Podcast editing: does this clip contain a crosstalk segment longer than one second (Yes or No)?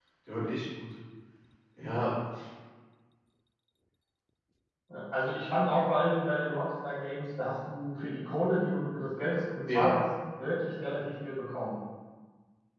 No